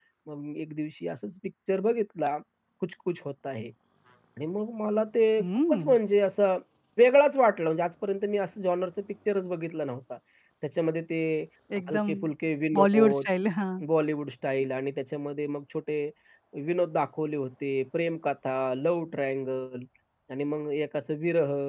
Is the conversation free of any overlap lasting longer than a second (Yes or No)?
Yes